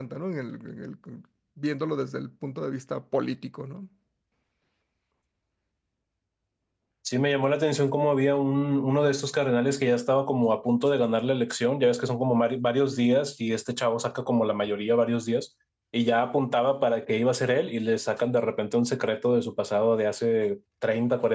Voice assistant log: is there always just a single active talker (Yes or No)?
Yes